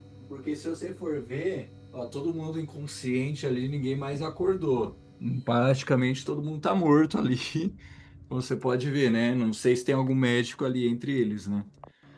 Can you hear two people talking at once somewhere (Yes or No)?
No